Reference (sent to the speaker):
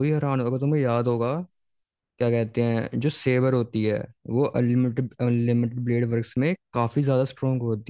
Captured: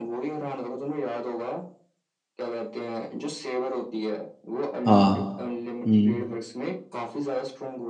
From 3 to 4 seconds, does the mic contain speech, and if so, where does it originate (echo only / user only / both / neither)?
echo only